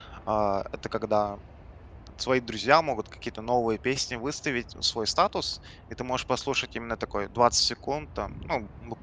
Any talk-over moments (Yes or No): No